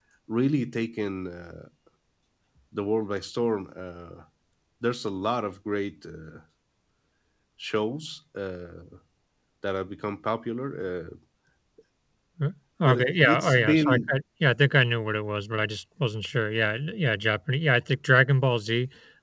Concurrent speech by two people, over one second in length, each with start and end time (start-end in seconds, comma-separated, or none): 12.8-14.1